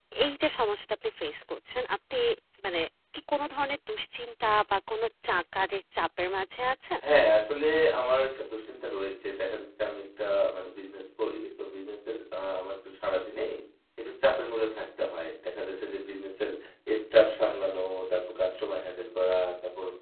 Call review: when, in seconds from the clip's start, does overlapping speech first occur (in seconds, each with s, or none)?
none